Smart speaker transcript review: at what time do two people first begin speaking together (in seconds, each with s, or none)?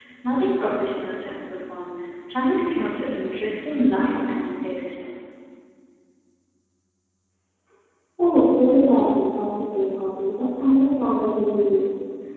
none